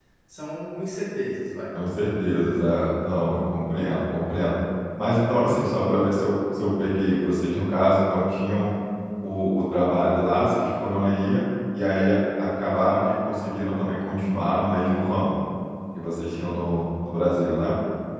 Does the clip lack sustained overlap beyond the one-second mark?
Yes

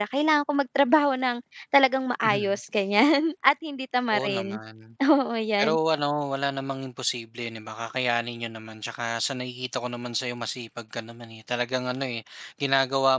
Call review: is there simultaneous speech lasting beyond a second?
No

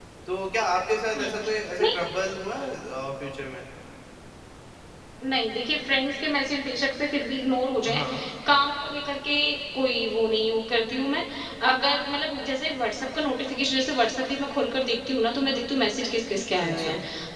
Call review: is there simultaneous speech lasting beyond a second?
No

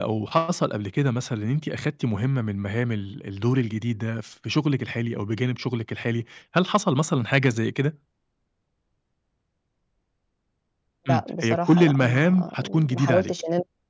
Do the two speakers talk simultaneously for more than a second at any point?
Yes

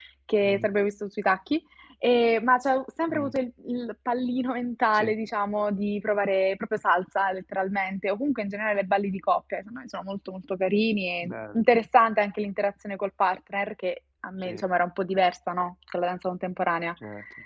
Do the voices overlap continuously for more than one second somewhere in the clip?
No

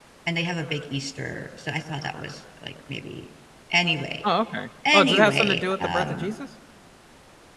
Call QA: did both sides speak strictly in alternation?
No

